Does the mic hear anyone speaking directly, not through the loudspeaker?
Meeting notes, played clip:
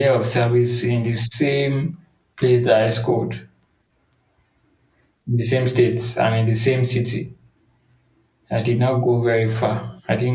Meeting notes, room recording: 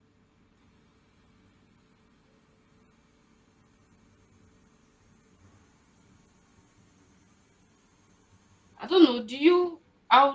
Yes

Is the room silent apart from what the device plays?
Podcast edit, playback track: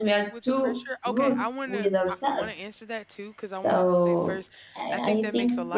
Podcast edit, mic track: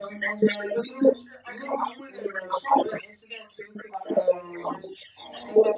Yes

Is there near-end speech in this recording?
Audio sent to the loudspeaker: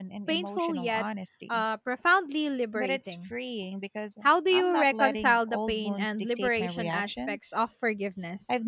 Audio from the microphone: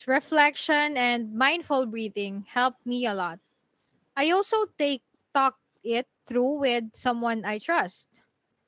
Yes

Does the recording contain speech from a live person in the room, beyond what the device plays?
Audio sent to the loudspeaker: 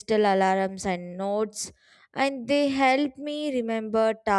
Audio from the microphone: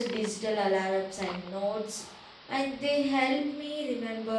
No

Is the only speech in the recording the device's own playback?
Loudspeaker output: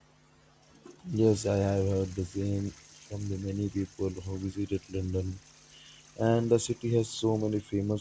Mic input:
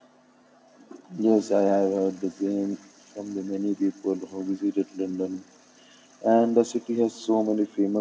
Yes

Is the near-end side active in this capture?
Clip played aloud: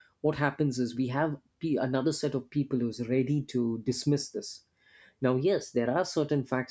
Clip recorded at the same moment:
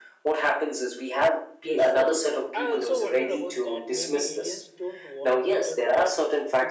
Yes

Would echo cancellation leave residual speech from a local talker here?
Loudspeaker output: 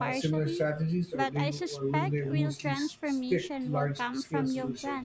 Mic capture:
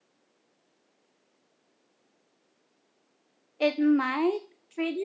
Yes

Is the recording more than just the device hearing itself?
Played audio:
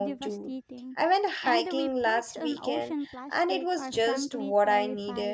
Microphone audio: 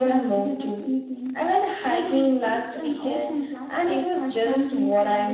No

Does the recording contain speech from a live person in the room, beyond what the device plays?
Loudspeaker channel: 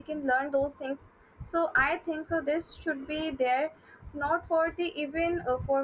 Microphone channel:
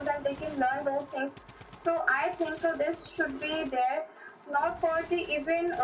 No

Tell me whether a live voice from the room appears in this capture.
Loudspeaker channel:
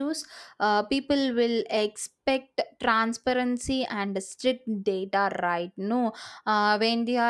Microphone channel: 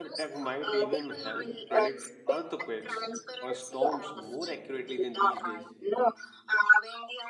Yes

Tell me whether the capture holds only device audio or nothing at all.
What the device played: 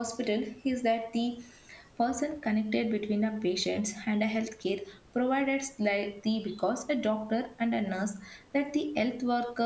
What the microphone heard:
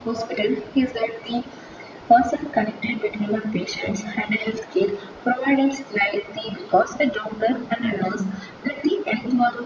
Yes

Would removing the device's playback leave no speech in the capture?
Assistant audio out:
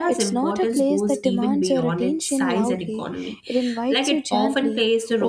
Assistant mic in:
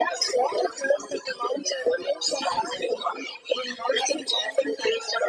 Yes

